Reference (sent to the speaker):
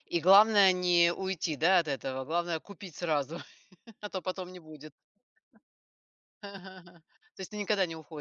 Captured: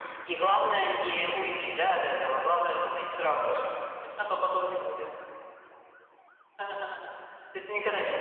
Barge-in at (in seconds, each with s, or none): none